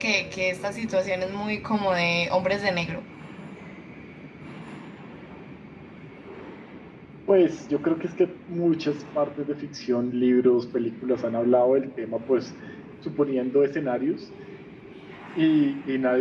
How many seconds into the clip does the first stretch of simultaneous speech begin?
none

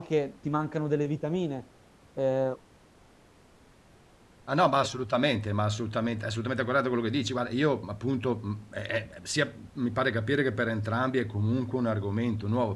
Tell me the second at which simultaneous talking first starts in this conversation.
none

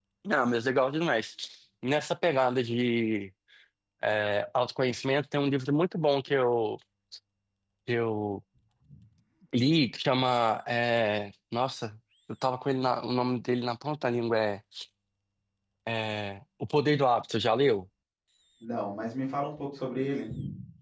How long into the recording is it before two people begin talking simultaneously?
none

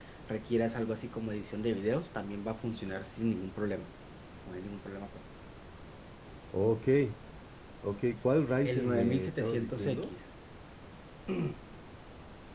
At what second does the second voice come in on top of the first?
8.7 s

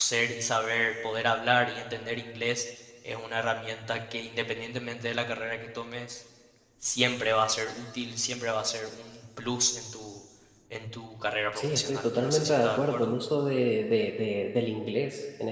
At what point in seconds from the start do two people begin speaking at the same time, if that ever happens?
11.5 s

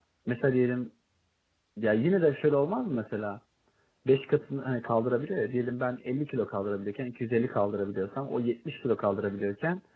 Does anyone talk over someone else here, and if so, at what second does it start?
none

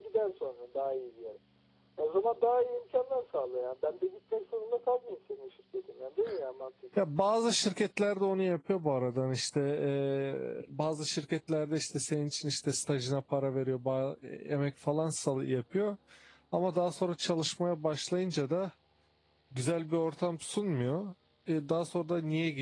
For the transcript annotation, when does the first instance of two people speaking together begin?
none

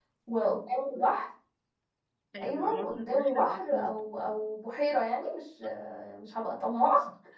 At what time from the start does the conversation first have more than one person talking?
2.4 s

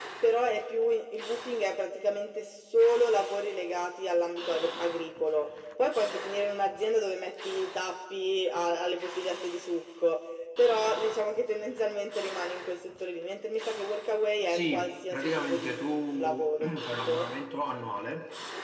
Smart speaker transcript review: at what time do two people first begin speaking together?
14.5 s

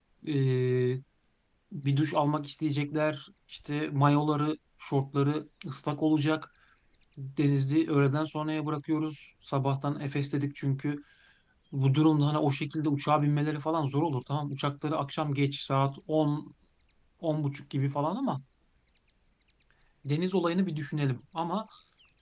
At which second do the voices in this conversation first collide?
none

